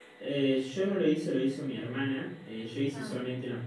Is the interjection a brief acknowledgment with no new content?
Yes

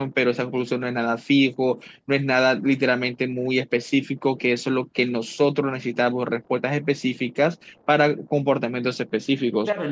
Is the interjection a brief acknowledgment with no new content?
No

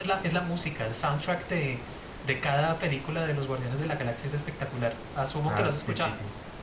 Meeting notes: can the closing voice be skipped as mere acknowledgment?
No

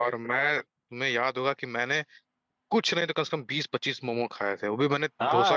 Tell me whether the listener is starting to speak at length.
Yes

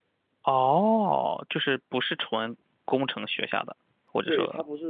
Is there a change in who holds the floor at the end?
Yes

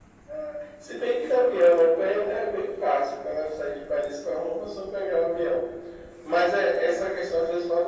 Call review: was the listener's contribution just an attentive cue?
Yes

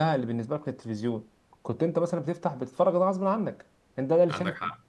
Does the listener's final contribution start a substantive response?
No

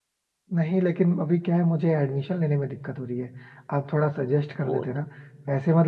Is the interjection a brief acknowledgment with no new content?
Yes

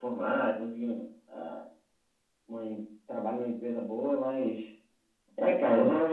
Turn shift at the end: No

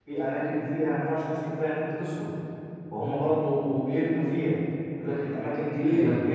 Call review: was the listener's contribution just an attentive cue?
Yes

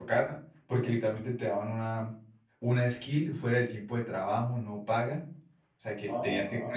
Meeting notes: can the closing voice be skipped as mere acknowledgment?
Yes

